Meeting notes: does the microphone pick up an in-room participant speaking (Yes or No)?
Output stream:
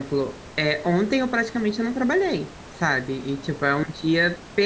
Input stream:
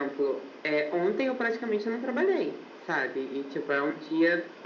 No